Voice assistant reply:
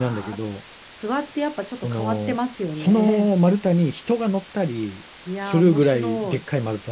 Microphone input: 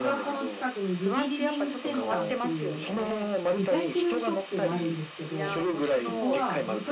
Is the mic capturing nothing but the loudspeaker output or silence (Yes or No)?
No